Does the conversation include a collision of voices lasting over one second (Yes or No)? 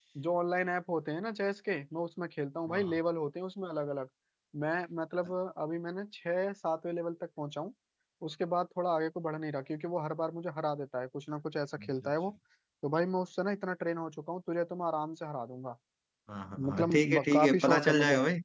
Yes